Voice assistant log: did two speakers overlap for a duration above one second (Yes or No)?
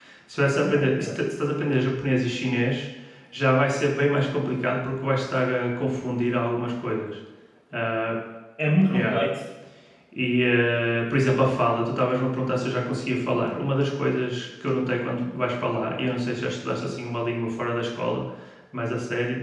No